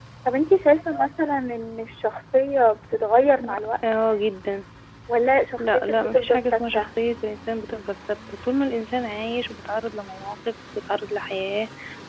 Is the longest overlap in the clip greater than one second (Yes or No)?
Yes